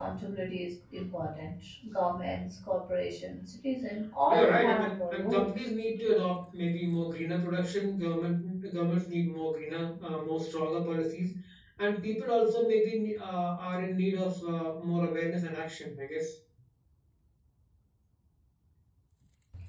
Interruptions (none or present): present